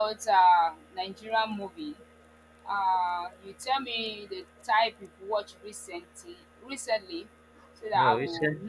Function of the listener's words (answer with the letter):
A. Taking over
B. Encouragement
A